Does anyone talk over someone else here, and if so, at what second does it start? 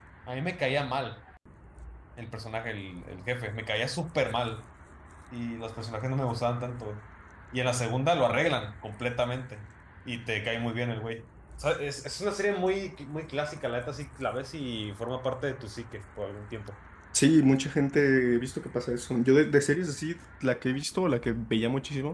none

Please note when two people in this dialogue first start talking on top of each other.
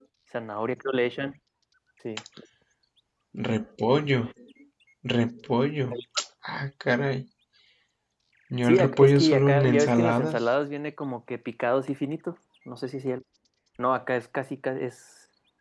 9 s

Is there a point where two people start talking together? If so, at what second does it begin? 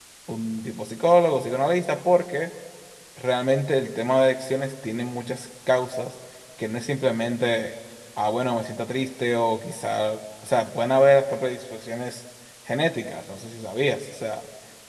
none

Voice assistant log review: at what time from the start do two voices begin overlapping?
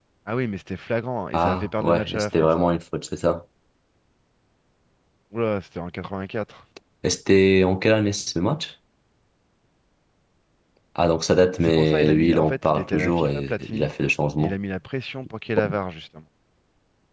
1 s

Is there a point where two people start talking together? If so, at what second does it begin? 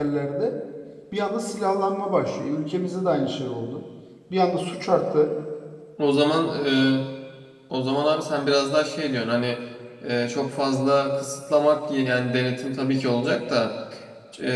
none

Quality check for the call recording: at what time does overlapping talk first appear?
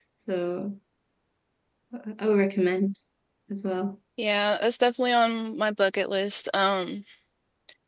none

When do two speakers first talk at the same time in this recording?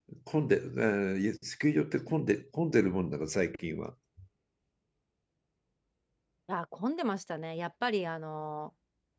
none

